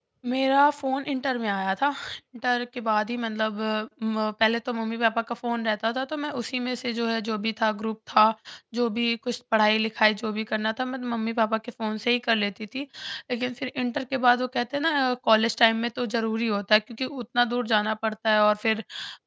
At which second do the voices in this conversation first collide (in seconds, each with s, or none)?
none